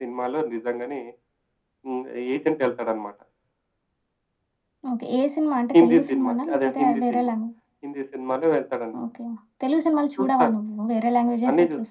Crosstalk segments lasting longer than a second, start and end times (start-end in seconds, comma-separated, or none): 5.8-7.3